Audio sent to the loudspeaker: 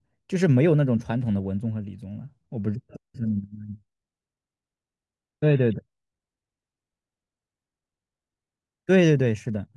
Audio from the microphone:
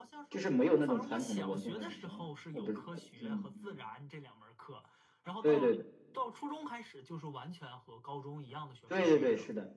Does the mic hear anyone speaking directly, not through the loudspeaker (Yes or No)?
Yes